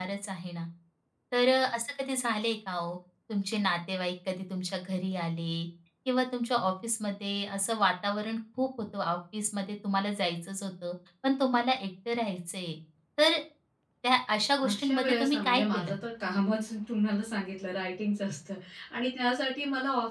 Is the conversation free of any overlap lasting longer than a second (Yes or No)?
No